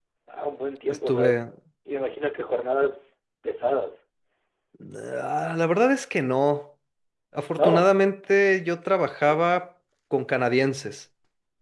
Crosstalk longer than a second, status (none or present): none